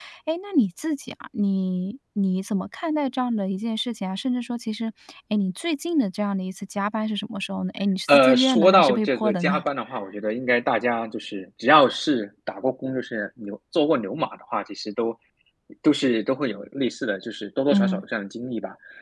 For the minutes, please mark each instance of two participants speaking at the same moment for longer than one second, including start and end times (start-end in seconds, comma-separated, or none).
8.1-9.6